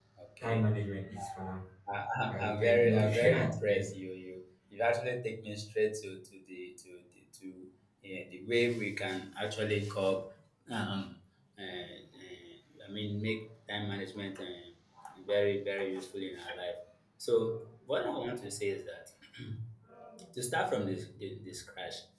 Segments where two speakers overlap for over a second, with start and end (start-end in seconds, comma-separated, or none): 2.3-3.9